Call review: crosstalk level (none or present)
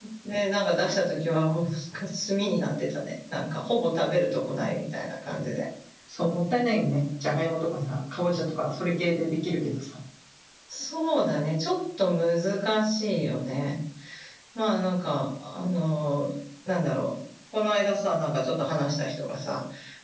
none